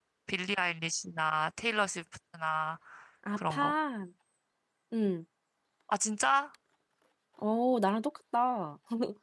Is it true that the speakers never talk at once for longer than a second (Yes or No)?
Yes